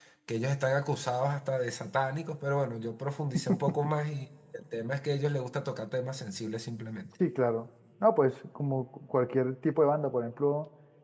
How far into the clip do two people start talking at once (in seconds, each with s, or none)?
none